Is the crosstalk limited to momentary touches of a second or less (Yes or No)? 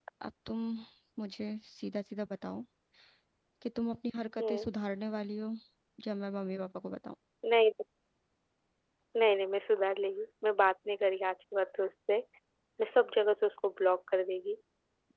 Yes